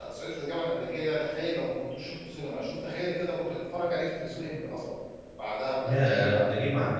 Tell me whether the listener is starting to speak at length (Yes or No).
Yes